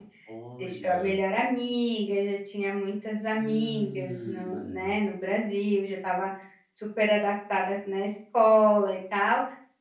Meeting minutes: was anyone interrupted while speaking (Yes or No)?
Yes